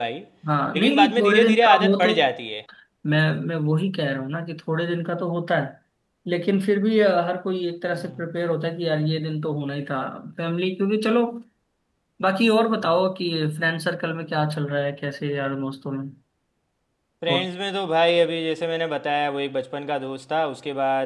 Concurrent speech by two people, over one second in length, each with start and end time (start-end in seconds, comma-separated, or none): 0.7-2.1